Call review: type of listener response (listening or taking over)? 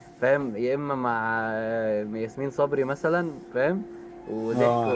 taking over